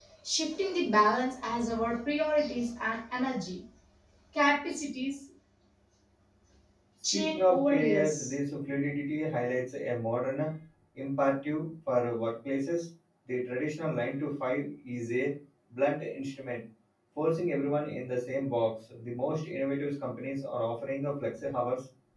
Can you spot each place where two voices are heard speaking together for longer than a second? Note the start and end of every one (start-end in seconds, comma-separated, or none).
7.1-8.4